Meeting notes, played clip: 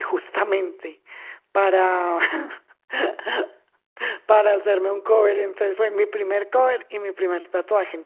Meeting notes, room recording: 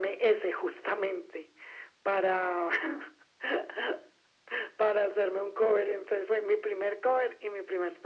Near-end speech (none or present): none